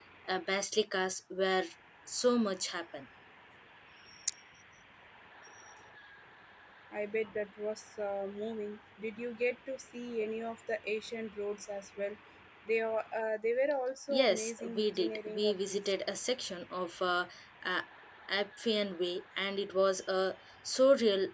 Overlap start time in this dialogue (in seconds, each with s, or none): 14.1 s